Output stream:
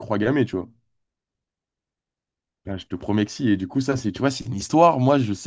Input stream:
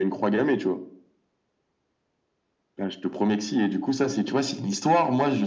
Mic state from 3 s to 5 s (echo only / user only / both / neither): echo only